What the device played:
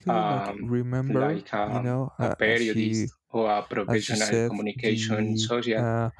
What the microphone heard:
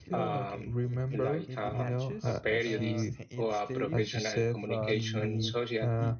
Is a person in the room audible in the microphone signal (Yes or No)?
Yes